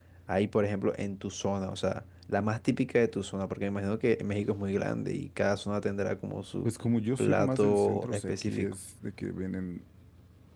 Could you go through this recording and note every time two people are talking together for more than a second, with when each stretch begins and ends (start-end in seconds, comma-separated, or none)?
7.2-8.7